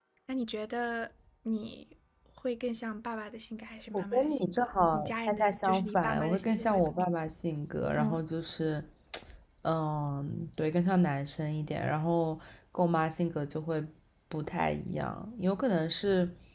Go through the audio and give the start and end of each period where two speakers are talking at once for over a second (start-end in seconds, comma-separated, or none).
3.9-7.0